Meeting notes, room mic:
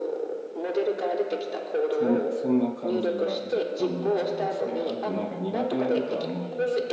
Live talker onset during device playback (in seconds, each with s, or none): 1.9 s